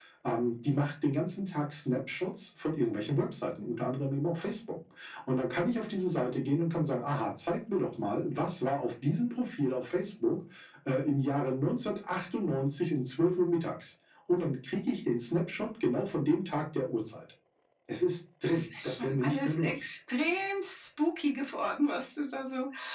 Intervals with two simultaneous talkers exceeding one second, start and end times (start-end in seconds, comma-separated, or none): 18.4-19.8